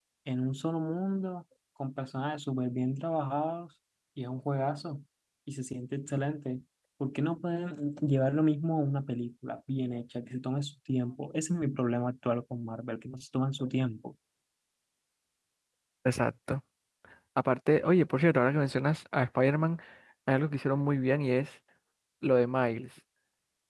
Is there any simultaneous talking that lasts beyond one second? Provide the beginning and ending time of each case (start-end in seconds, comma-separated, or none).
none